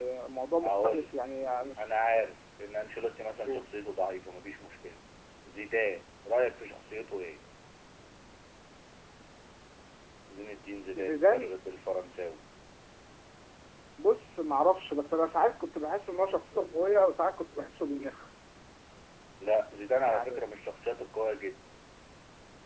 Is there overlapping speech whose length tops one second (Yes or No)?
No